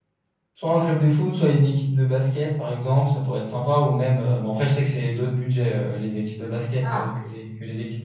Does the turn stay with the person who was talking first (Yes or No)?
Yes